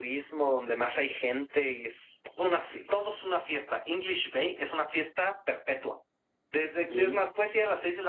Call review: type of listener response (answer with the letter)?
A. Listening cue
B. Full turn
A